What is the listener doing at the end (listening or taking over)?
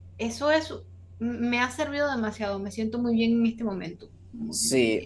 taking over